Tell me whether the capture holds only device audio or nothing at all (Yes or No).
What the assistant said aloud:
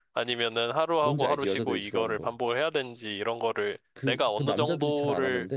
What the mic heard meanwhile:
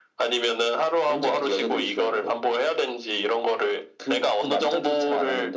Yes